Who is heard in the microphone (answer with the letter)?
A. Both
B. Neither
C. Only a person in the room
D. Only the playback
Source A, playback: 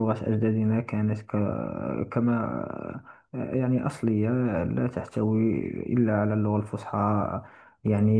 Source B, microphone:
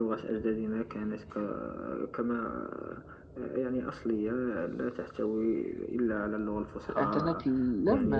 A